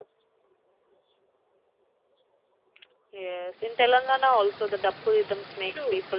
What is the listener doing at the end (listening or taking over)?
taking over